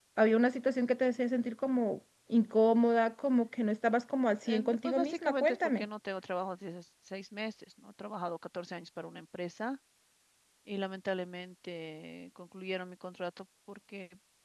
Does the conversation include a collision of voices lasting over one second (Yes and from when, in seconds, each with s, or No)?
Yes, from 4.4 s